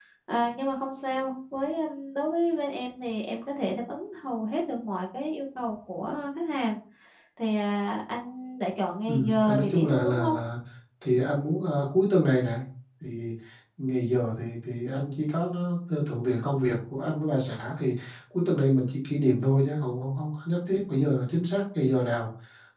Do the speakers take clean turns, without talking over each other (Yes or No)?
No